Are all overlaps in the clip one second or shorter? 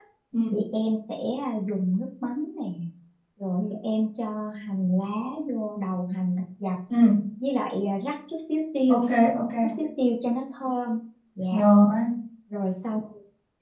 Yes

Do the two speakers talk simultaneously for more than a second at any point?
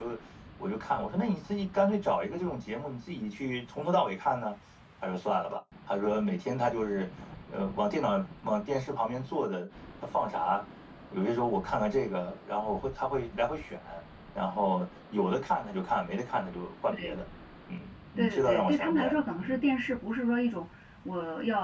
Yes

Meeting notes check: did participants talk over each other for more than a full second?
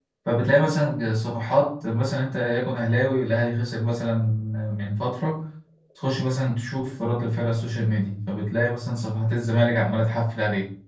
No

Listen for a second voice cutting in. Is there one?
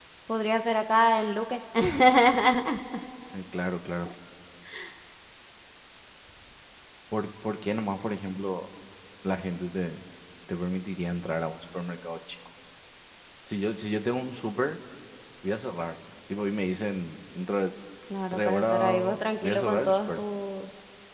Yes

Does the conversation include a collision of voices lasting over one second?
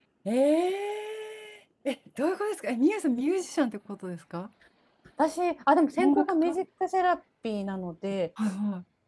No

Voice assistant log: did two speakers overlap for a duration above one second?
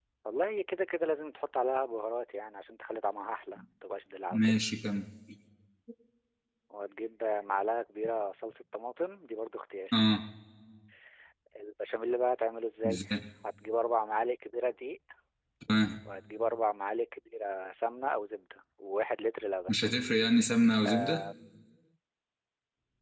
No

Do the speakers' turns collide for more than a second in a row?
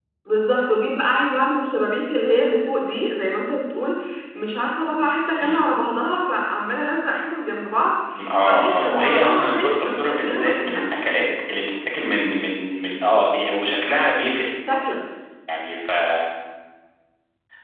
Yes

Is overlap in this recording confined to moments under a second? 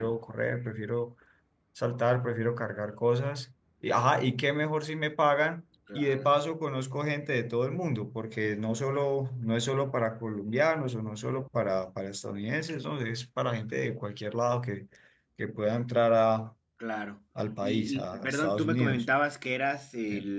No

